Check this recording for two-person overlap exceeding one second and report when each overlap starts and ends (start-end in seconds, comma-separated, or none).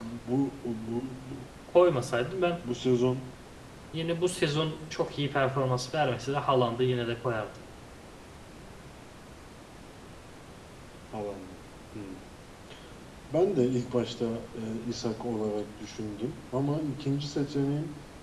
none